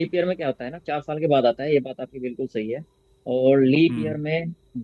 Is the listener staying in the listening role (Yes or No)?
Yes